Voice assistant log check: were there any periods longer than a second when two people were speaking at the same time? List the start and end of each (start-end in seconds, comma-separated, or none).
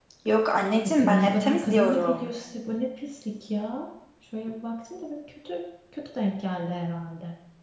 1.0-2.3